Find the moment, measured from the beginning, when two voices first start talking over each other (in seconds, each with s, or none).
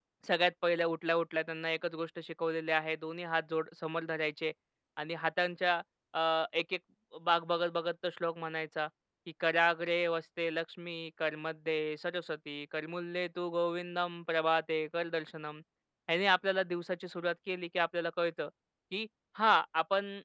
none